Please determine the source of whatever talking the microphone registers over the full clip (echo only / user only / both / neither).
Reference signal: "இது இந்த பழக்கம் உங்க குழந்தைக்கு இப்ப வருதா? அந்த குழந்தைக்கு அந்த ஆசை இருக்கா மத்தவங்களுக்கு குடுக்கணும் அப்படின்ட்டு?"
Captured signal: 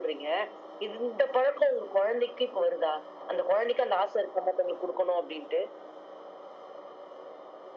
echo only